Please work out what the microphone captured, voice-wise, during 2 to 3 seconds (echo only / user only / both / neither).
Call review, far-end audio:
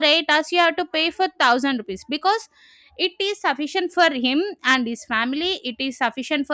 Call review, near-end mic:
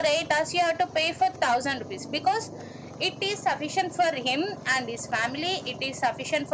echo only